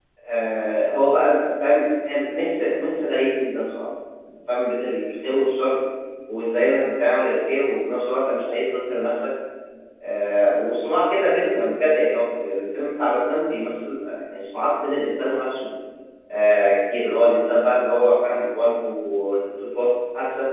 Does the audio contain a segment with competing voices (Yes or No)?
No